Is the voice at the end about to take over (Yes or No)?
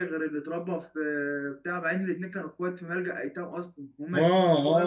Yes